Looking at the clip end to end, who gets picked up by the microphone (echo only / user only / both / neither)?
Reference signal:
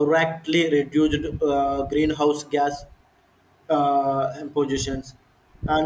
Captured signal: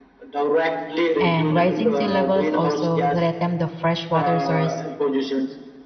both